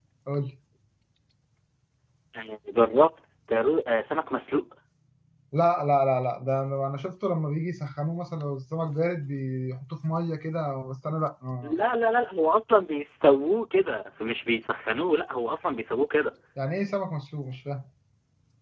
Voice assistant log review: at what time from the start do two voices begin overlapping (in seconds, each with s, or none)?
none